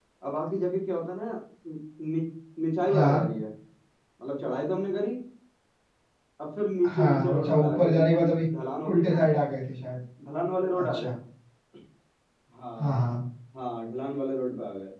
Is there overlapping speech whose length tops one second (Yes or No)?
Yes